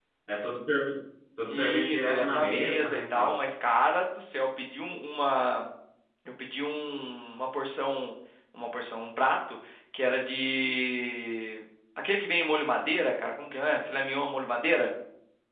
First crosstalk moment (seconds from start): 1.5 s

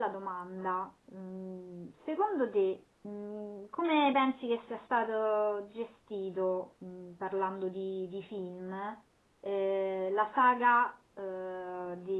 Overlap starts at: none

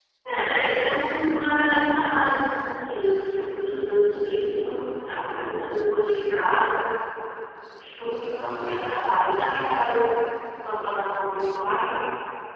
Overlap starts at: 3.4 s

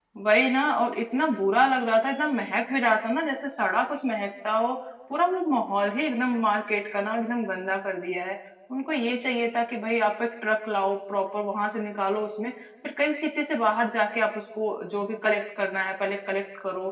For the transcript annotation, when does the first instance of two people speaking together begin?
none

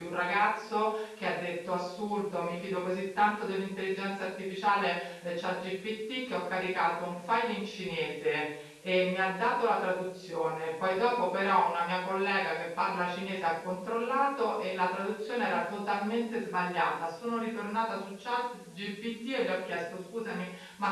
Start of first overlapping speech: none

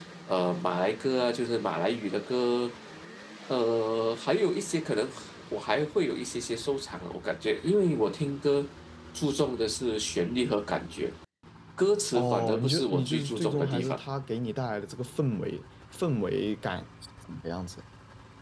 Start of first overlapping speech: 12.1 s

